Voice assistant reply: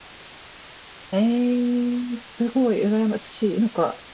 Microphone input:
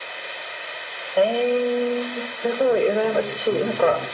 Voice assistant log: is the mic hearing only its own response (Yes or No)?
No